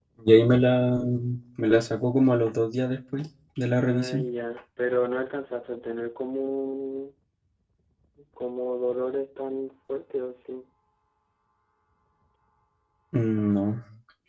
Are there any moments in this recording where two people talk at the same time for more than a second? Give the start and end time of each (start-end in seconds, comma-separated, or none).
none